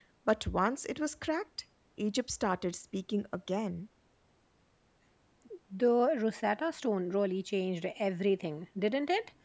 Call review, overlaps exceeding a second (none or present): none